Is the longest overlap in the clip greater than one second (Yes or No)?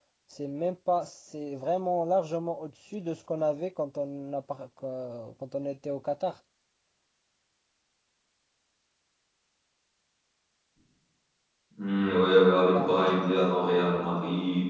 No